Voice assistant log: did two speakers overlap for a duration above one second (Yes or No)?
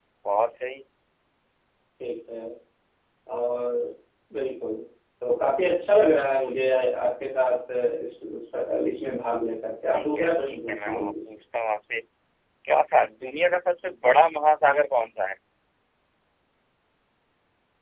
Yes